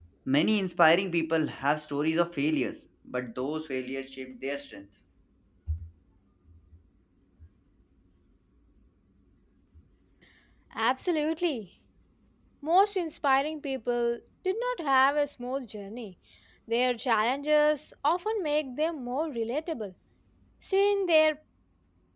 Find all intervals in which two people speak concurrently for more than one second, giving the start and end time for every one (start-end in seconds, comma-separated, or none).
none